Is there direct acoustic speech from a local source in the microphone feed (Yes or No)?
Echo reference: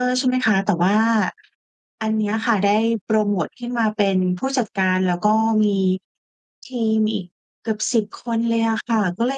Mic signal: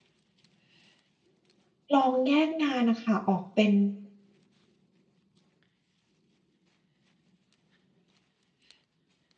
Yes